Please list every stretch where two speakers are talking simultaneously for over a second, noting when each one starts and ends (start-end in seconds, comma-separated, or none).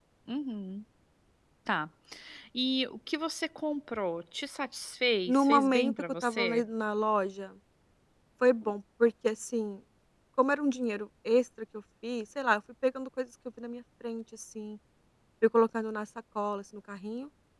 5.3-6.6